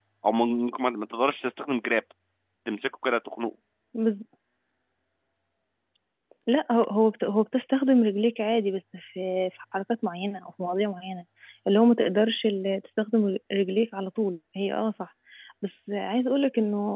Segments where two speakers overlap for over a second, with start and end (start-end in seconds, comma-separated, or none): none